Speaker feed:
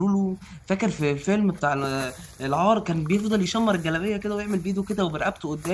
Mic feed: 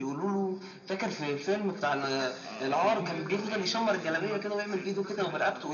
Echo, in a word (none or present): present